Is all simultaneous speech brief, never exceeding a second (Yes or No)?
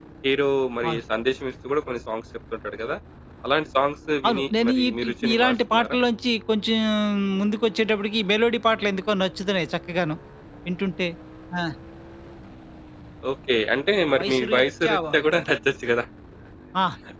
No